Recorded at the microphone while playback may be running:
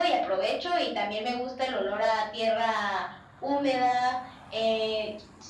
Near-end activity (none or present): none